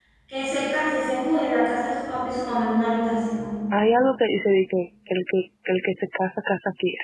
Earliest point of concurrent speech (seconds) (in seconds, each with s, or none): none